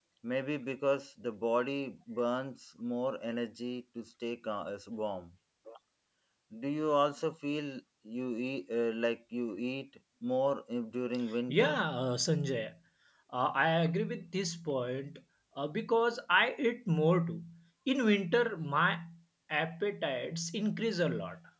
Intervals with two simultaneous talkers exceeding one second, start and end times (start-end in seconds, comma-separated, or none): none